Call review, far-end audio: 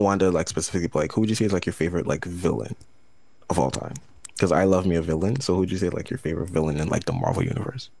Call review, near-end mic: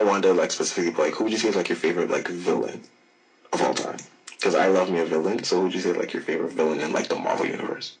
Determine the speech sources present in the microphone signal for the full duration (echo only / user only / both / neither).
echo only